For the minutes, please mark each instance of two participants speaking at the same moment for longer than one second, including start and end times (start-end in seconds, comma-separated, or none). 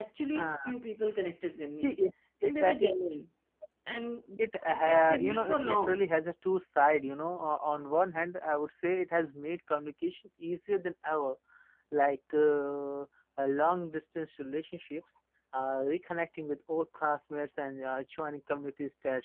4.6-6.0